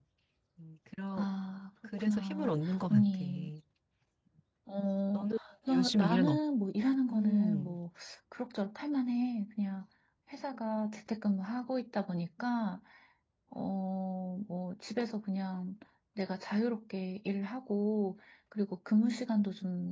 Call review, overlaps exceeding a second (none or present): present